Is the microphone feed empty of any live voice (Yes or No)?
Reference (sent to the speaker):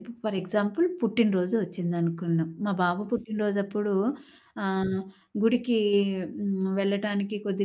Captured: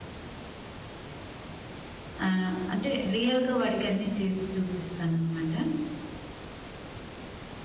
No